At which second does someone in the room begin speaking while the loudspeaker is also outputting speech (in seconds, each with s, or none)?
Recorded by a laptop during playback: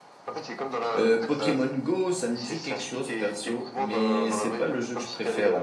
0.9 s